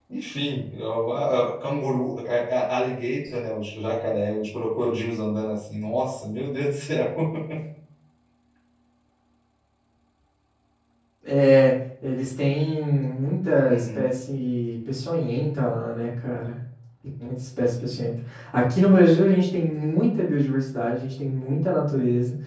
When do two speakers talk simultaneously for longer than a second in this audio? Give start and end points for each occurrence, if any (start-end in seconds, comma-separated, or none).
none